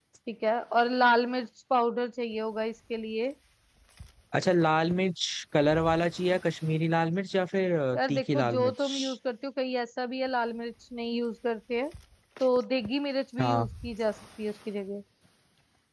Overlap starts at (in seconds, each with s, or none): 7.9 s